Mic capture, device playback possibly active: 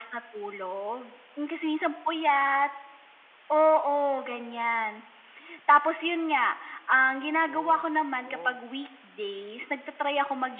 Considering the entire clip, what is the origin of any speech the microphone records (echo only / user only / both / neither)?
both